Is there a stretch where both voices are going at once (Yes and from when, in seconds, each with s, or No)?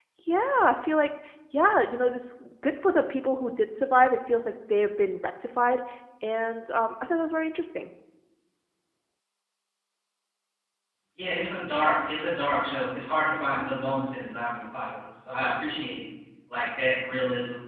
No